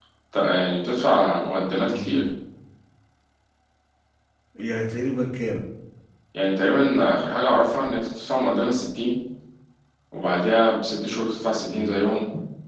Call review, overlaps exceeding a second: none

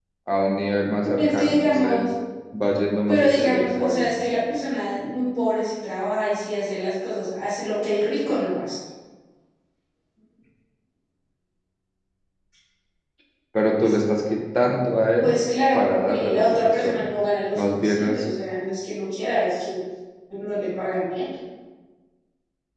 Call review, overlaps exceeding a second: present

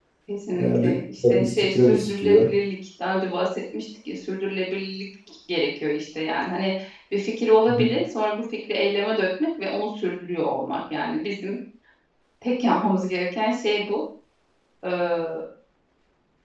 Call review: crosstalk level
present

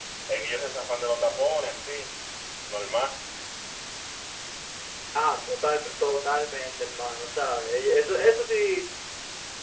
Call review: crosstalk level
none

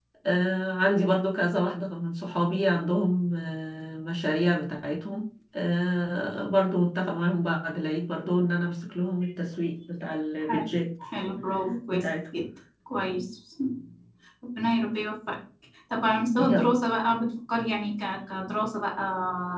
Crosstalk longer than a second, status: none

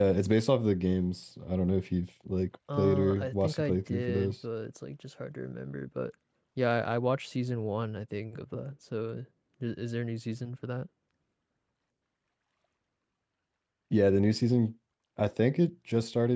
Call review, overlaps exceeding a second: present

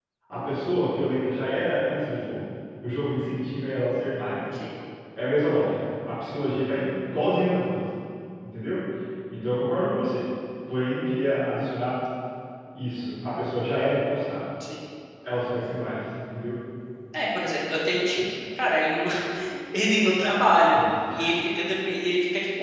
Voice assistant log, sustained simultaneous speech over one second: none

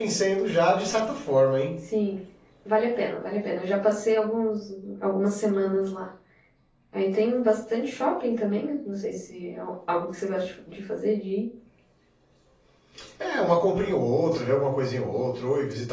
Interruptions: none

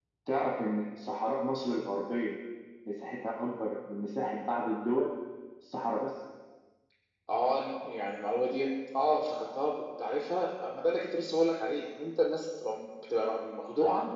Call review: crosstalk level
none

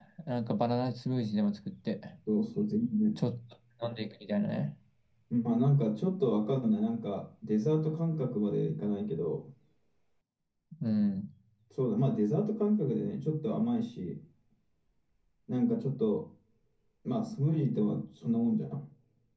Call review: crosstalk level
none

